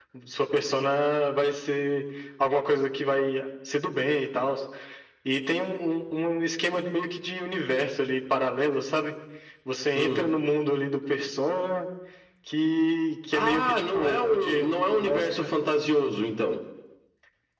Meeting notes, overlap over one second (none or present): present